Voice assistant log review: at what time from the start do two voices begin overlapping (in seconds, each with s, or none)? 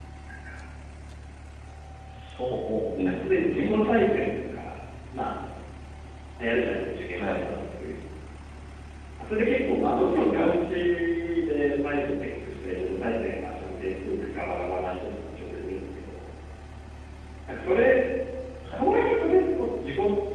3.0 s